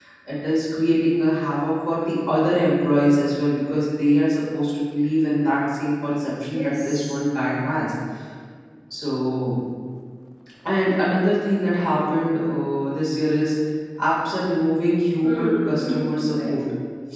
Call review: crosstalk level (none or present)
present